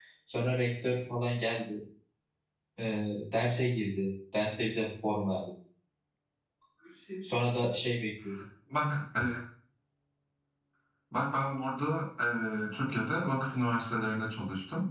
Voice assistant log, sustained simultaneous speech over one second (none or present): none